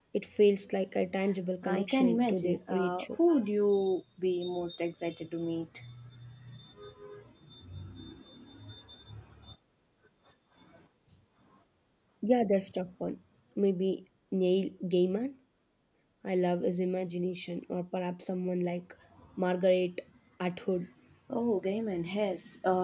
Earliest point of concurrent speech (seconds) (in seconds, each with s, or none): 1.6 s